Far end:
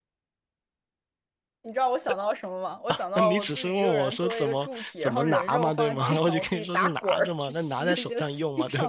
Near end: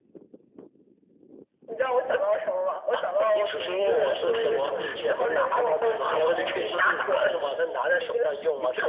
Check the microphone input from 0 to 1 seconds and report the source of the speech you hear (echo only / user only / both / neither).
neither